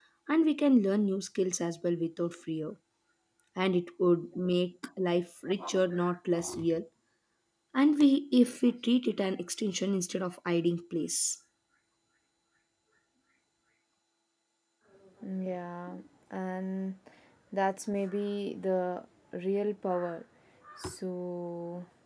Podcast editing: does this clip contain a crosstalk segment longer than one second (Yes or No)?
No